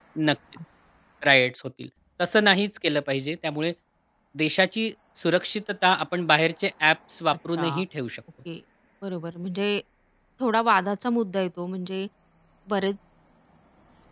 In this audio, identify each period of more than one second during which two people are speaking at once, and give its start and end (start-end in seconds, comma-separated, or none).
none